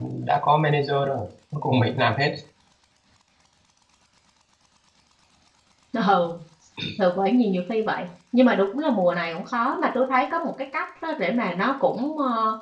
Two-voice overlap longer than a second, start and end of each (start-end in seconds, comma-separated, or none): none